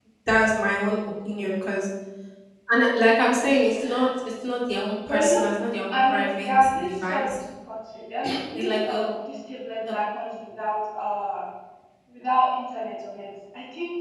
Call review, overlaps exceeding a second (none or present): present